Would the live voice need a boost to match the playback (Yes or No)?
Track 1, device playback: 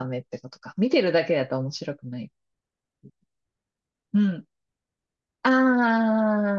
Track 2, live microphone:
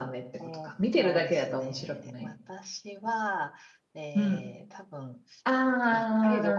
Yes